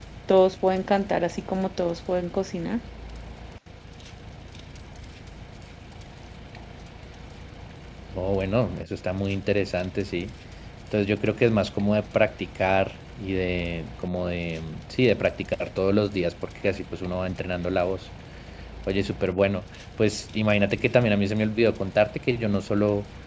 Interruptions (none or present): none